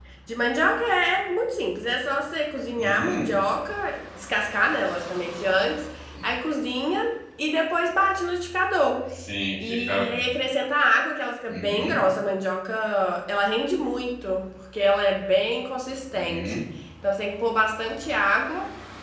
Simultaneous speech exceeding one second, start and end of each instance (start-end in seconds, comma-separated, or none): none